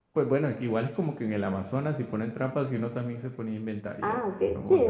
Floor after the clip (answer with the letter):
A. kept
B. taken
B